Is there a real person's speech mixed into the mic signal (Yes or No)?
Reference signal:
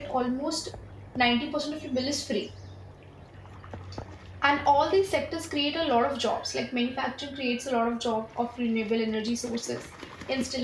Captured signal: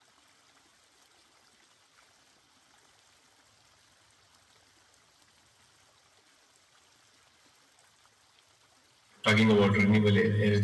Yes